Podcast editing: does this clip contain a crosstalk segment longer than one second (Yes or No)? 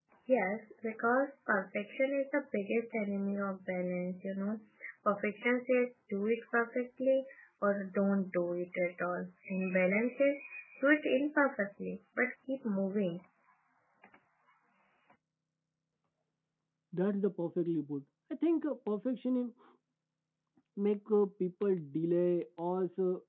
No